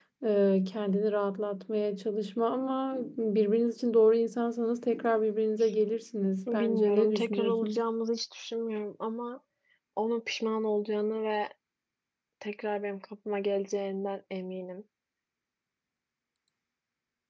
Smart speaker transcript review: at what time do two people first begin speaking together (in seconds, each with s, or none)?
6.5 s